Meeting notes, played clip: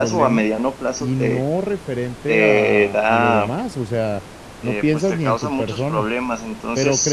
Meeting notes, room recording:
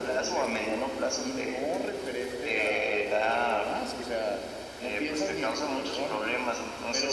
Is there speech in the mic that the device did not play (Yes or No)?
No